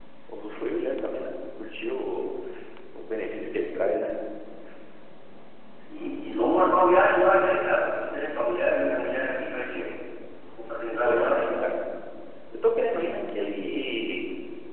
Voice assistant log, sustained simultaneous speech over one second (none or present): none